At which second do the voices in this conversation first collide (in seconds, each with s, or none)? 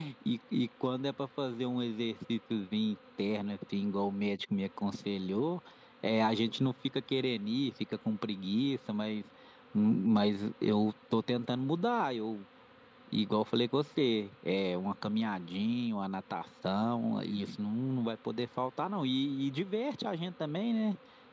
none